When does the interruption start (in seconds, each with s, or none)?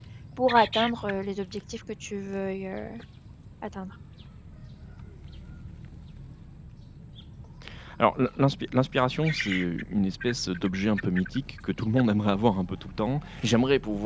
none